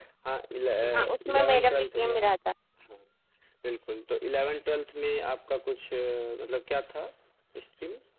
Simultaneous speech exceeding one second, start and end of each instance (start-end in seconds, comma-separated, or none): 0.8-2.3